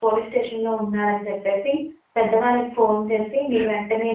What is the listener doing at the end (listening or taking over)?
listening